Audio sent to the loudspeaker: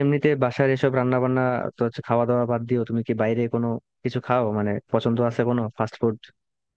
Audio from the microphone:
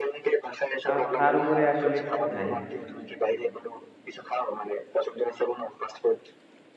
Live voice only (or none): তার তার উপরে আসলে কিছু নাই